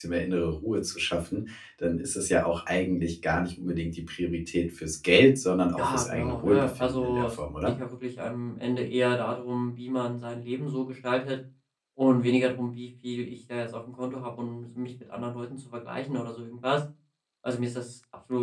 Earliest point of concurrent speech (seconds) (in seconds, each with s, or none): 5.8 s